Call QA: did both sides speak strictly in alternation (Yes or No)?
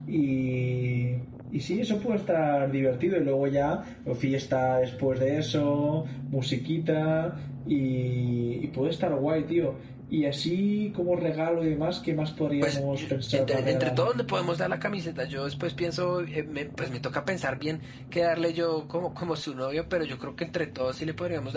No